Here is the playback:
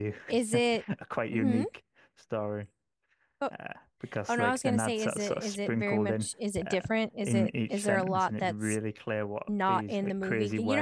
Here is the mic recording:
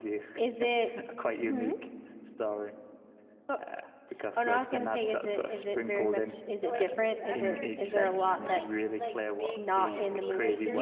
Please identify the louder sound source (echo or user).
echo